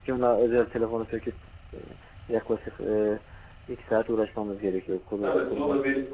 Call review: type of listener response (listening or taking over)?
taking over